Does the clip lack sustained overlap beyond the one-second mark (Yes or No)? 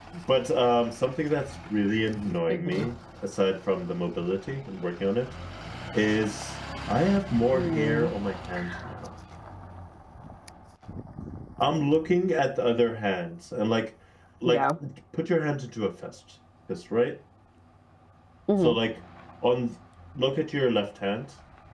Yes